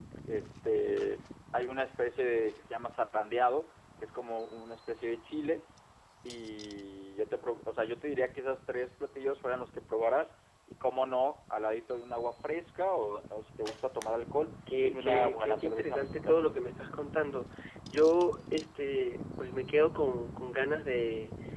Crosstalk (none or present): present